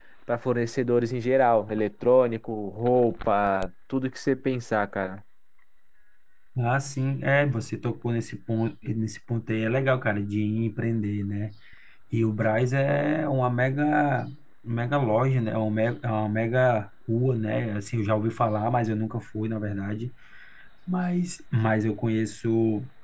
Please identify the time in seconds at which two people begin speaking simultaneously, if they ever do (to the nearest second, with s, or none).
none